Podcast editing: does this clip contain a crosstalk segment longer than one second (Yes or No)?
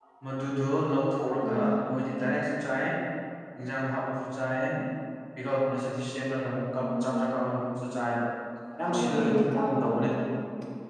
Yes